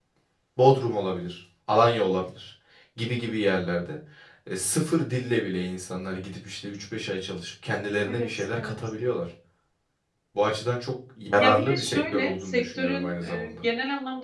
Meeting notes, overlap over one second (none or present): present